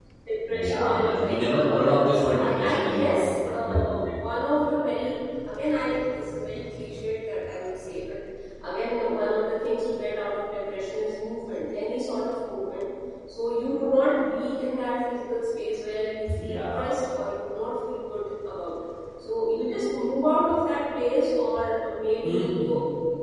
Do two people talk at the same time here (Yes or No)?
Yes